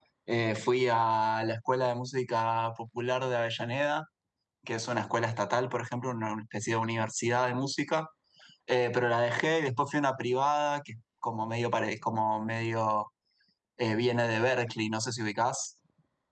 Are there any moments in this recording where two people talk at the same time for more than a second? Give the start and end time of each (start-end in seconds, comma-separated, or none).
none